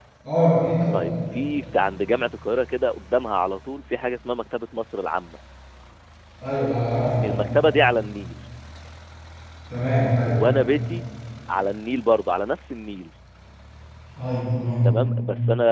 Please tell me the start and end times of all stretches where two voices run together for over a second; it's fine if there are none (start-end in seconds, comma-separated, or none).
none